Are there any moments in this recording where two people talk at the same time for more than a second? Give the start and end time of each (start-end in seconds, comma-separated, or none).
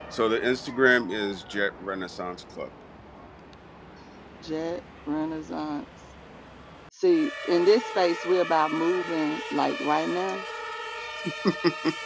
none